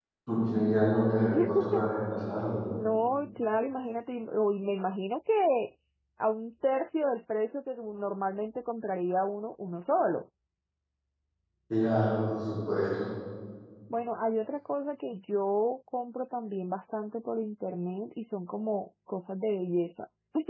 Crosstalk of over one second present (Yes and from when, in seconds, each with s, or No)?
No